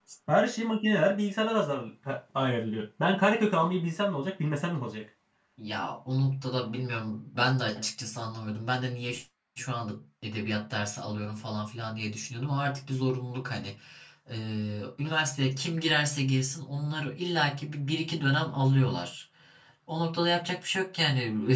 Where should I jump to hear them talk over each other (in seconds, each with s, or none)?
none